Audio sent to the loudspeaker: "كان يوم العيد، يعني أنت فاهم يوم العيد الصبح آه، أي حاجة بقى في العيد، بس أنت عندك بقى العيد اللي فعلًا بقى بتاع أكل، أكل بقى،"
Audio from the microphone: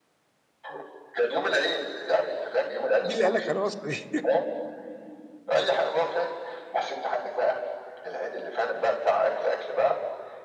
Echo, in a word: present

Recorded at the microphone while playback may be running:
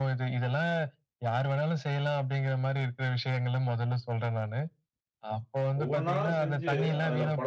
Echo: present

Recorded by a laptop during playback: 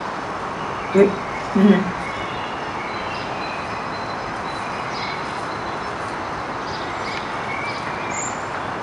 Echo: none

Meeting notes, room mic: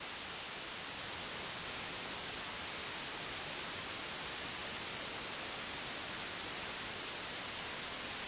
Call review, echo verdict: none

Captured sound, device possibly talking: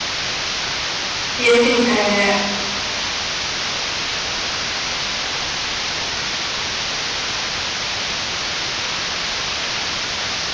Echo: none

